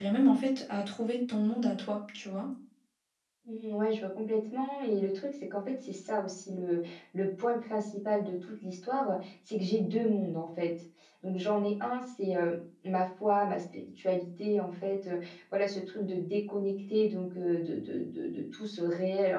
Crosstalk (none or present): none